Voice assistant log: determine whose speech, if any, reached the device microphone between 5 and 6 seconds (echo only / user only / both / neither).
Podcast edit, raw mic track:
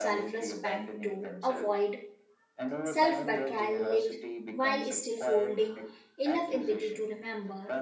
both